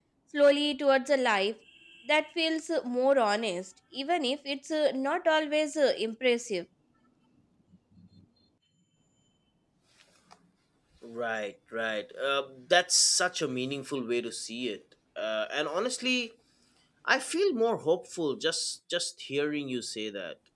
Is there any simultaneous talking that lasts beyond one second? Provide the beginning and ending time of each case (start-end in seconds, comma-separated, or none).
none